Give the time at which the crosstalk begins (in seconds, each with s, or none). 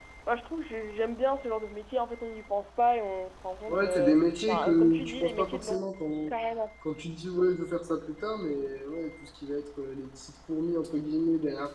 3.7 s